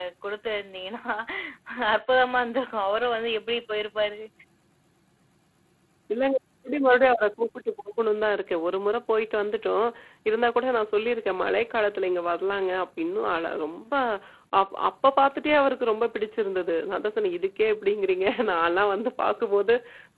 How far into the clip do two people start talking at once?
none

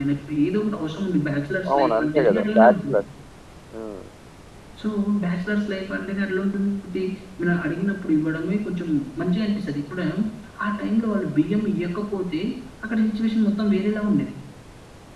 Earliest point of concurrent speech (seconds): 1.7 s

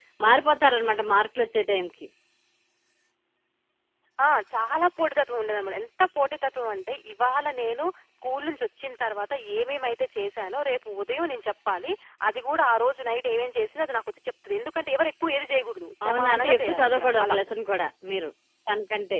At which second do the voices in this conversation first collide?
16.0 s

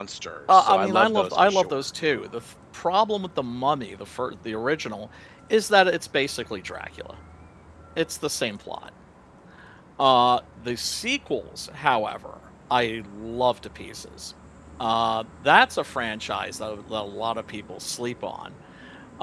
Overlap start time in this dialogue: 0.5 s

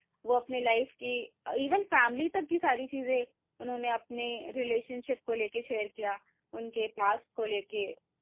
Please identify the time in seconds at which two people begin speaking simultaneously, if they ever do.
none

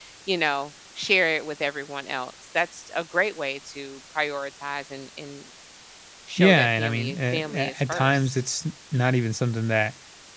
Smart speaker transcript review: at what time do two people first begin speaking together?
6.4 s

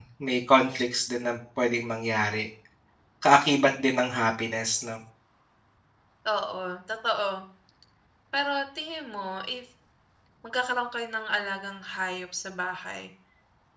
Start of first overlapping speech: none

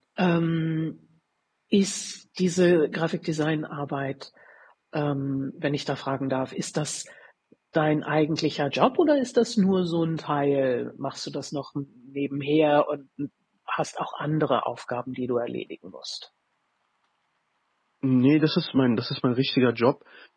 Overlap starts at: none

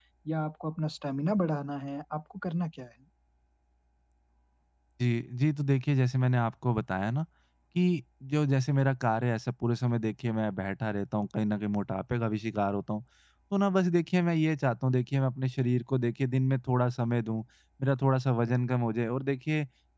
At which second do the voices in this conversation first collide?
none

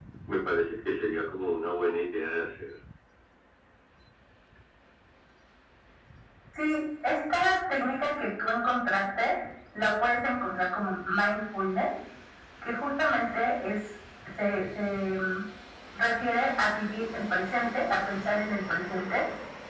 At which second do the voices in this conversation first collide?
none

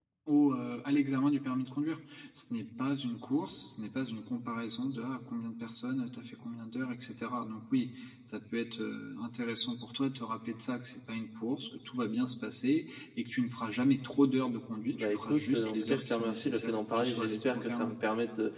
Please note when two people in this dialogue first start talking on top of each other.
14.9 s

